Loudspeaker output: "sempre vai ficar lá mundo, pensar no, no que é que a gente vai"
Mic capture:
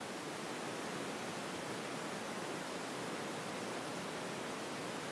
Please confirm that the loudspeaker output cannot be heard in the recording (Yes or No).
Yes